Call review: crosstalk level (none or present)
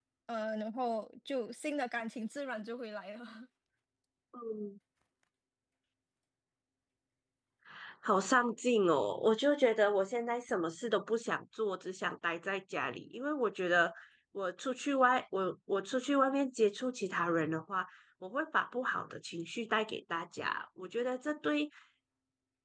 none